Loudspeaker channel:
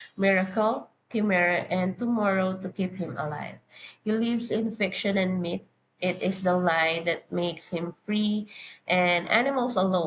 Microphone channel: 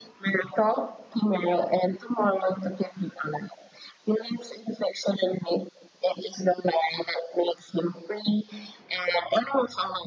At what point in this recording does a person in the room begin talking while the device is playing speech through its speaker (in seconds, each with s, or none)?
none